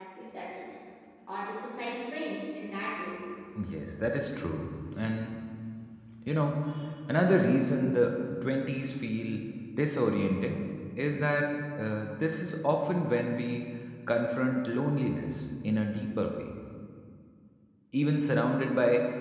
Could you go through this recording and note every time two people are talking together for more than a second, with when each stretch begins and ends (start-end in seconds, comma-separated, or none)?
none